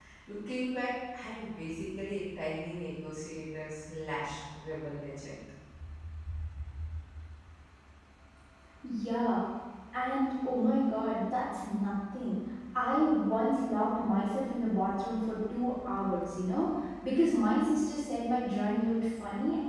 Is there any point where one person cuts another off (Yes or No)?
No